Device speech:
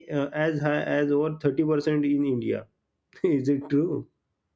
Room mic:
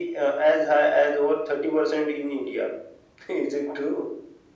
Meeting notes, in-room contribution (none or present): none